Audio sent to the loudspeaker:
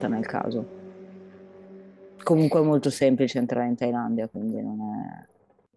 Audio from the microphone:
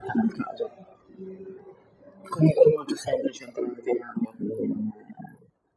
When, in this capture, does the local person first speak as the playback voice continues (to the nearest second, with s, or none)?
none